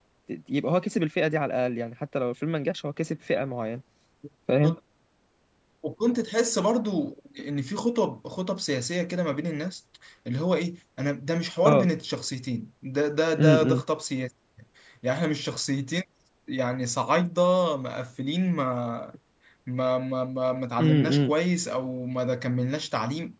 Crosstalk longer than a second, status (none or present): none